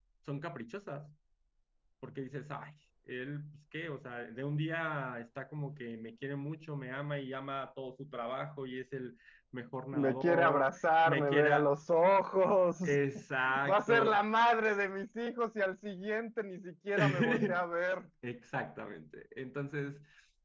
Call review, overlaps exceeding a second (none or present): present